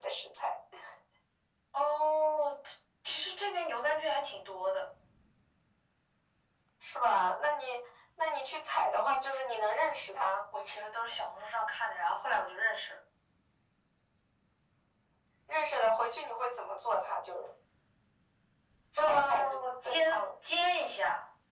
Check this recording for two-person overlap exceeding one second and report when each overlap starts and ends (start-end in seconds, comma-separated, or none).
19.0-20.2